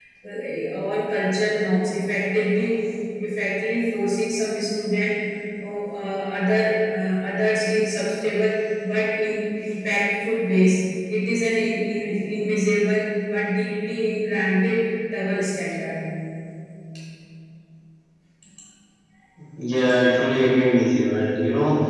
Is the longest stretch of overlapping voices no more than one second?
Yes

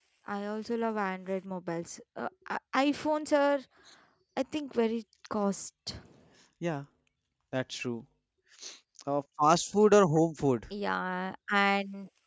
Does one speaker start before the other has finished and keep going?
No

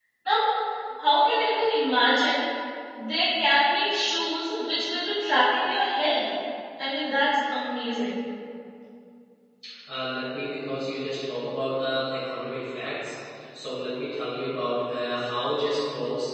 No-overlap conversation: Yes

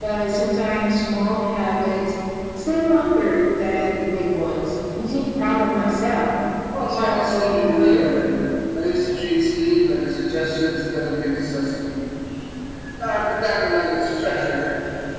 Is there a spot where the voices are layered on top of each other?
Yes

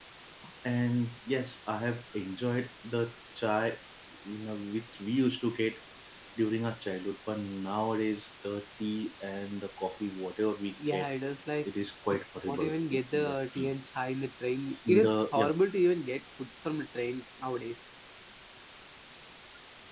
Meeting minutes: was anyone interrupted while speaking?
Yes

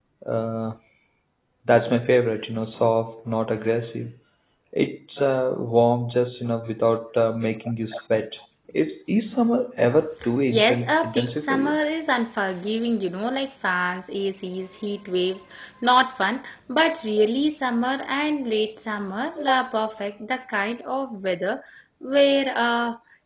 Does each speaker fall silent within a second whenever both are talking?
No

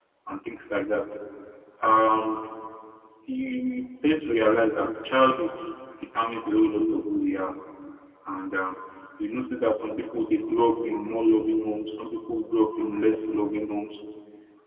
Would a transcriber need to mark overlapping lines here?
No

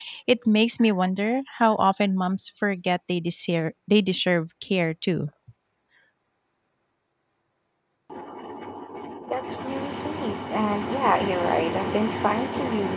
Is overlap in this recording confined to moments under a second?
Yes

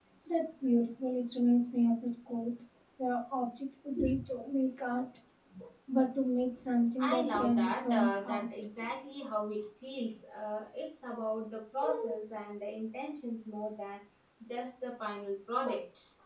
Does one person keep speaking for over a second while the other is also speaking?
Yes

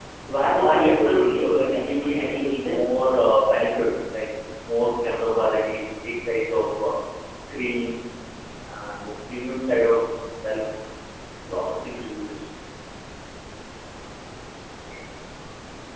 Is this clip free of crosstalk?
No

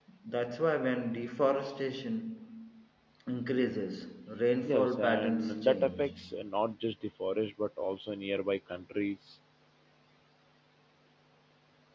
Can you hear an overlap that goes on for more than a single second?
Yes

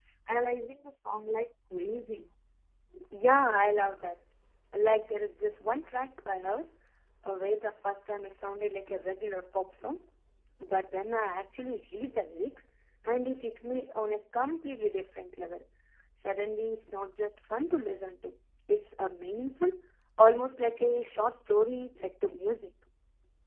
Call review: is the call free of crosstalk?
Yes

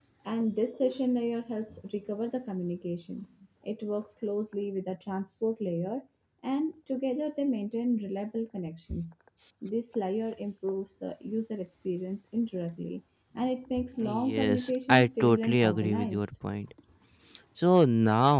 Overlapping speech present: Yes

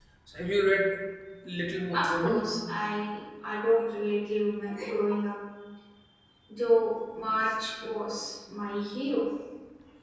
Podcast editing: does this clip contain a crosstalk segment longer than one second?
No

